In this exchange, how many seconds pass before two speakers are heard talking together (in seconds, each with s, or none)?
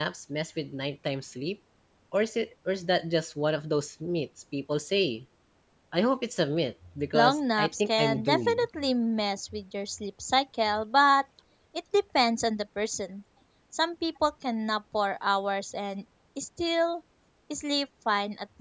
7.1 s